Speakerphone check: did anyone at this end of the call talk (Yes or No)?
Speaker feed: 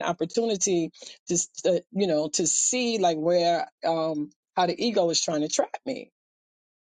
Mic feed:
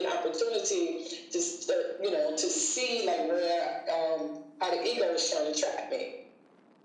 No